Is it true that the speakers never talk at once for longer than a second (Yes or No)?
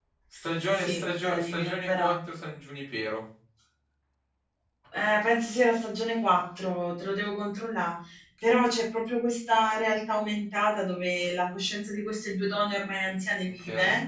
No